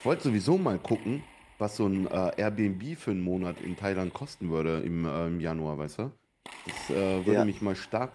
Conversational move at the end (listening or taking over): listening